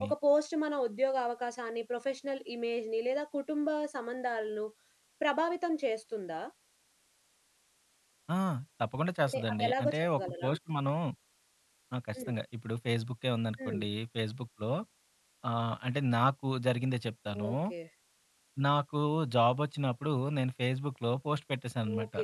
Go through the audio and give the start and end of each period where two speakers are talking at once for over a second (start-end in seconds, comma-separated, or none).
9.3-10.5